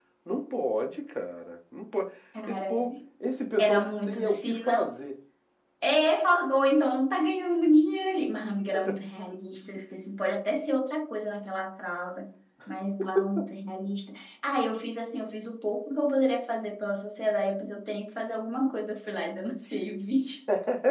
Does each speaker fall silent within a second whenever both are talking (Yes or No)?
No